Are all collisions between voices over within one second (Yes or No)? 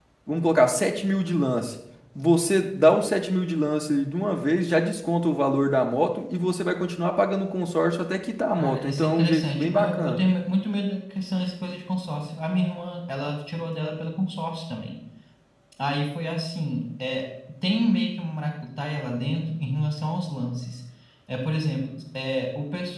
No